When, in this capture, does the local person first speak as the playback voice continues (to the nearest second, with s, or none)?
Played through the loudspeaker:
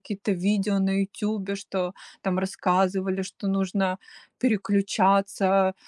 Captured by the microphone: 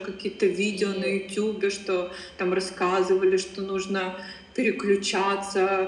1 s